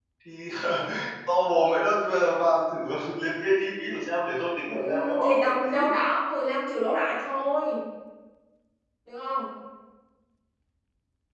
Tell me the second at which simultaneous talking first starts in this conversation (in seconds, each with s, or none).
4.7 s